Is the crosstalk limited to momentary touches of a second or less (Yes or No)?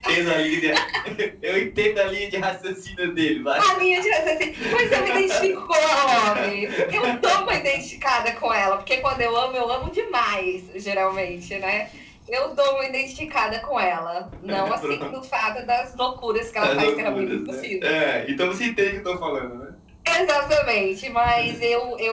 No